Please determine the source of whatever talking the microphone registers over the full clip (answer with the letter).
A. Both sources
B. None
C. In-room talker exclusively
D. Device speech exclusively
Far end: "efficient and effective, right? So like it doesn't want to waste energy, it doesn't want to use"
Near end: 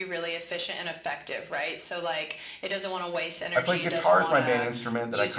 A